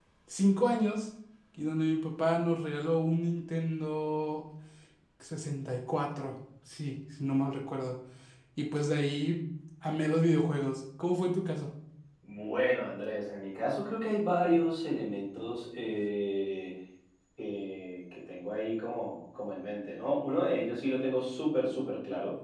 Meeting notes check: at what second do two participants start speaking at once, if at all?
none

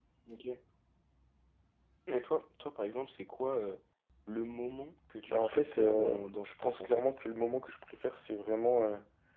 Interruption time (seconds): 5.2 s

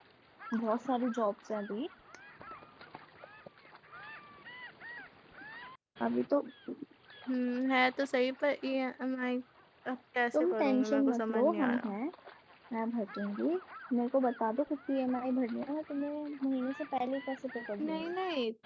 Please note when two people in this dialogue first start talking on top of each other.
10.4 s

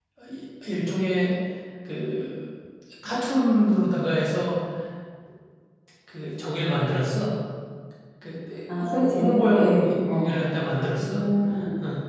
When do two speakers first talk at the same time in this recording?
8.9 s

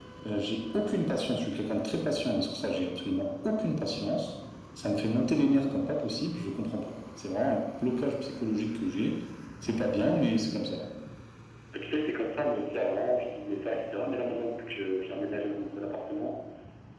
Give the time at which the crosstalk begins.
none

